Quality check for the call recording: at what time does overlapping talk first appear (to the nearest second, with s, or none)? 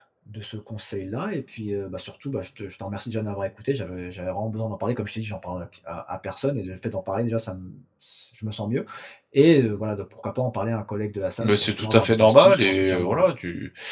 11 s